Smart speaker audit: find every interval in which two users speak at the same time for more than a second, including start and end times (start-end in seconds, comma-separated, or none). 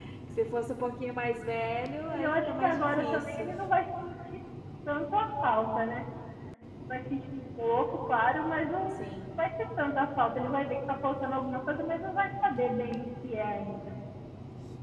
2.1-3.5